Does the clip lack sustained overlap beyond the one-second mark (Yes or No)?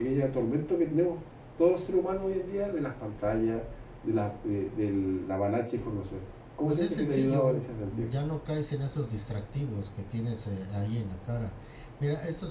No